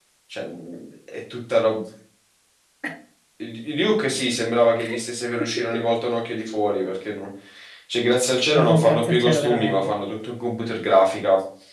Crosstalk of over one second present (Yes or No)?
Yes